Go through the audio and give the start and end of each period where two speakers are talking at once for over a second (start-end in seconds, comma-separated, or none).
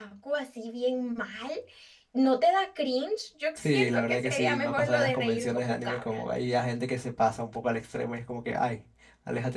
3.6-6.2